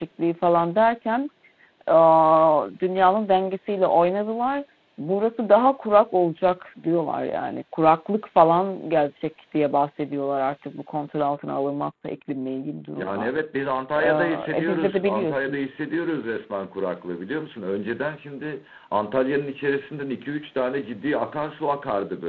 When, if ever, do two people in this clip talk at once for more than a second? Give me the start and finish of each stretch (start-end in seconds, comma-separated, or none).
14.0-15.6